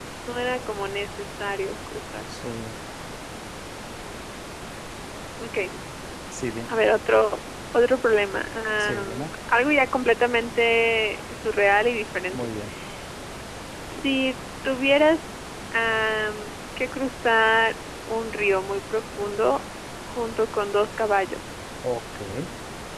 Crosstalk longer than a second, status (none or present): none